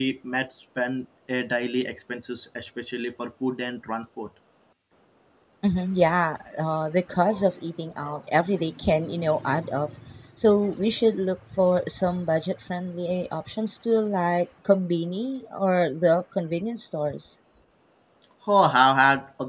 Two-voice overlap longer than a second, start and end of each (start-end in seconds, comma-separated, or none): none